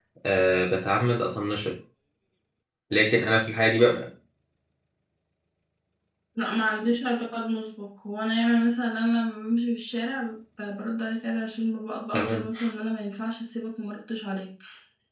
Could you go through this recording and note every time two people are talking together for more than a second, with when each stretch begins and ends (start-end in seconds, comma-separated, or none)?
none